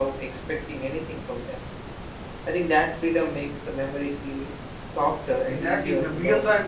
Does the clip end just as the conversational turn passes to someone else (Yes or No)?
Yes